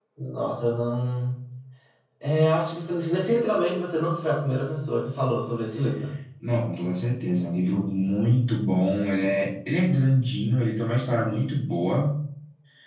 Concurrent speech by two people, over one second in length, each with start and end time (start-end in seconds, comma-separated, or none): none